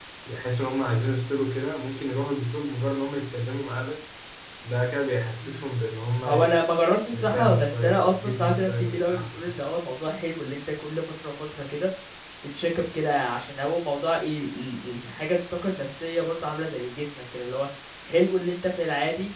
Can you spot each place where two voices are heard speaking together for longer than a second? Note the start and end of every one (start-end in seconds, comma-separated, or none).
7.1-9.4